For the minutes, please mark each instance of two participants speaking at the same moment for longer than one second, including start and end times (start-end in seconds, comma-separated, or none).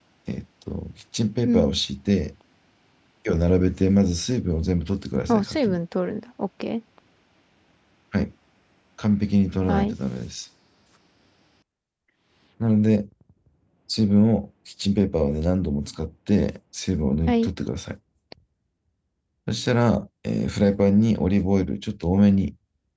none